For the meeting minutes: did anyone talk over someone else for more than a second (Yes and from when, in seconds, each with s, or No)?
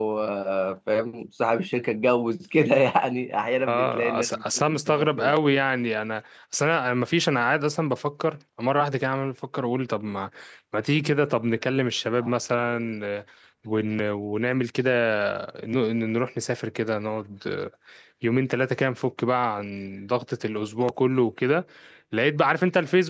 Yes, from 3.7 s